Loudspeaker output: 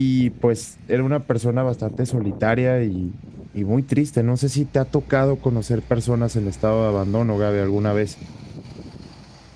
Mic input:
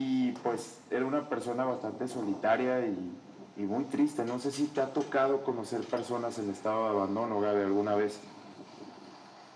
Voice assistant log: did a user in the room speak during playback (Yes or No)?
No